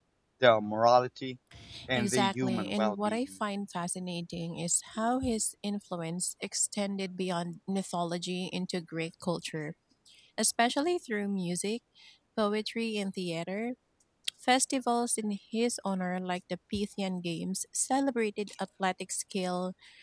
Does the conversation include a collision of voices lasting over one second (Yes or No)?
Yes